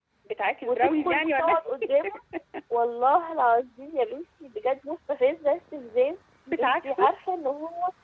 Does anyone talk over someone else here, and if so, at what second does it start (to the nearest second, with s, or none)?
1 s